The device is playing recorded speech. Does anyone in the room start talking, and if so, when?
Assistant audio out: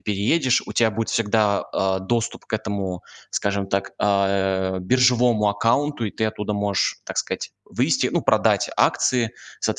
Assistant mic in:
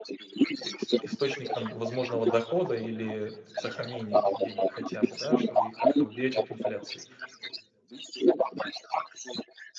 0.6 s

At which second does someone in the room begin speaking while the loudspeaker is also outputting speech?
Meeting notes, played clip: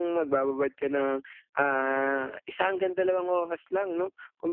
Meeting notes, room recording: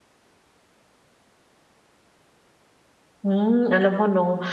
3.2 s

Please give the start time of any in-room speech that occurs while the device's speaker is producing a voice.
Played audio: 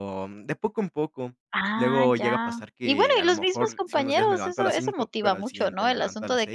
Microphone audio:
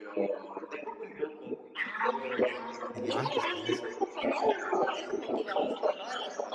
2.9 s

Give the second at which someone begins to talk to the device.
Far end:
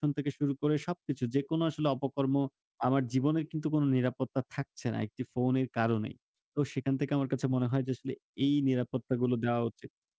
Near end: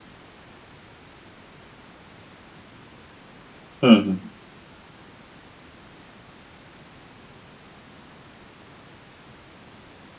3.8 s

